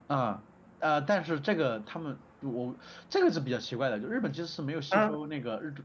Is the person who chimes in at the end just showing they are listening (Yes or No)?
Yes